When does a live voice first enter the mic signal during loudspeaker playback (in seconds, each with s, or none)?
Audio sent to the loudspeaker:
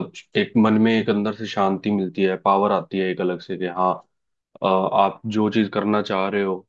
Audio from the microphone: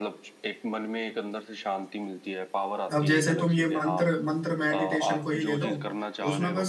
3.0 s